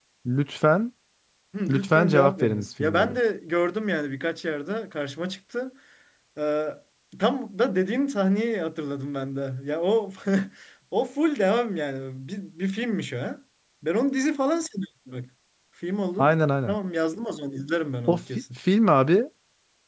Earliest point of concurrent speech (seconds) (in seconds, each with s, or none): 1.7 s